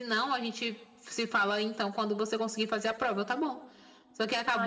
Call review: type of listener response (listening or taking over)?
listening